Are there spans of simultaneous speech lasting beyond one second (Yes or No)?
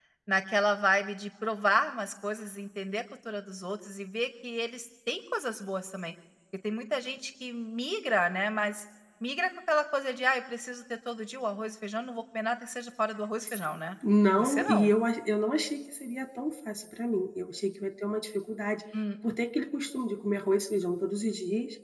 No